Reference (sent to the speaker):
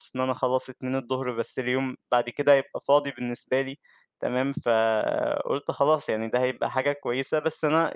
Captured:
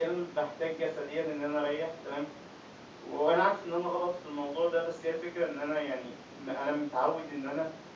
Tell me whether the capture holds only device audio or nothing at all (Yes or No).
No